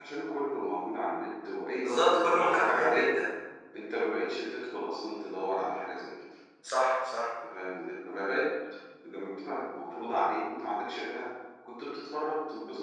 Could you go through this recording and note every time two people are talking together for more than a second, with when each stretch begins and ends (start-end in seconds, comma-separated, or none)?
1.8-3.1